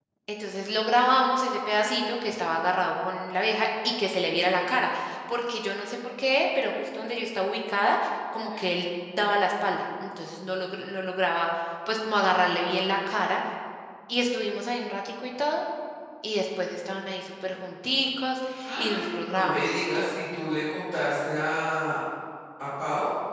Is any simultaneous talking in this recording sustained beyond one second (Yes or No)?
Yes